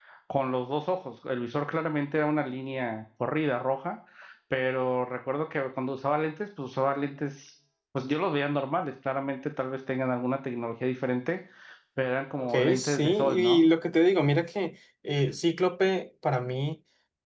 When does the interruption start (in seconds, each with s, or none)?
12.4 s